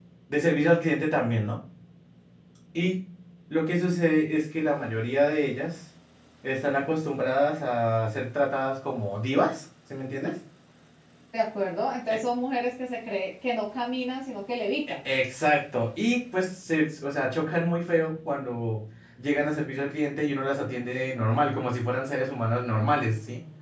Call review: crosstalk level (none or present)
none